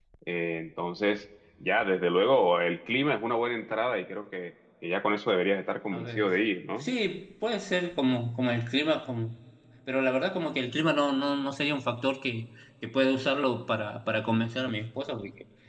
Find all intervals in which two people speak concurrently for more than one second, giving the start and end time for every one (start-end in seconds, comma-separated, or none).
none